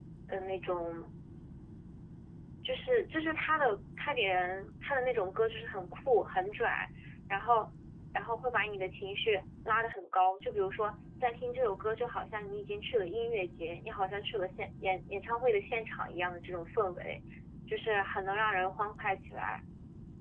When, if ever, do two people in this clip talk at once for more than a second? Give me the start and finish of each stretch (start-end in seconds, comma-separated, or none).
none